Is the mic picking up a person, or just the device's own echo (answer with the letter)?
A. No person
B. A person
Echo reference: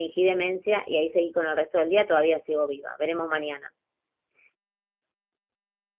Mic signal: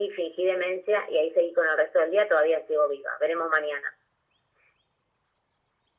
A